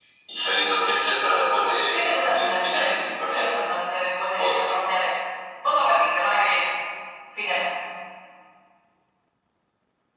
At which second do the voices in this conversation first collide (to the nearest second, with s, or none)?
2 s